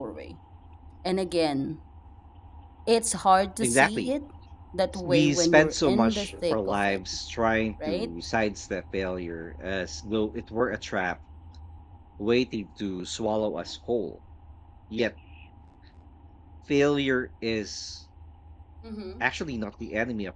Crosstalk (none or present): present